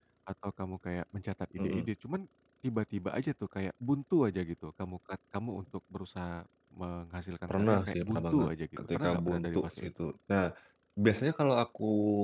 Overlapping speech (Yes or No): Yes